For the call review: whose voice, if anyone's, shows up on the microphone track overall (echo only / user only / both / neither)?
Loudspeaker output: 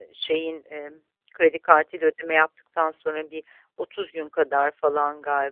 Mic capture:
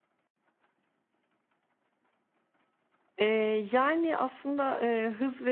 user only